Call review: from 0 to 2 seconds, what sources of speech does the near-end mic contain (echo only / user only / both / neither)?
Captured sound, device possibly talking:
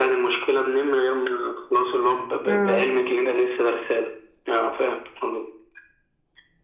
echo only